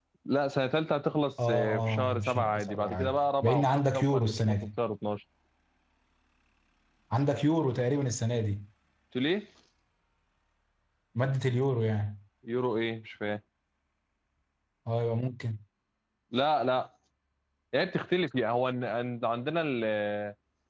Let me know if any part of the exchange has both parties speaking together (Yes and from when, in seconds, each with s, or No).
Yes, from 1.4 s